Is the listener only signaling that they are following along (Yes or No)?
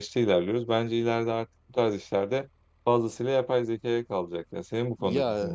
No